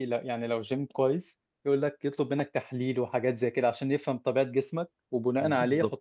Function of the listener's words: listening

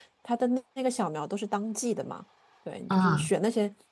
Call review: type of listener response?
listening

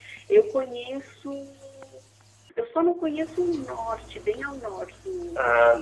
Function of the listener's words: listening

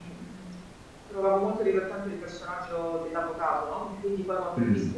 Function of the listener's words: listening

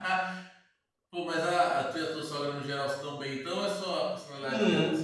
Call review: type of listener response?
taking over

